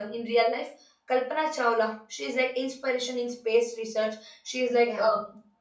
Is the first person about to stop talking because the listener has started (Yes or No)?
No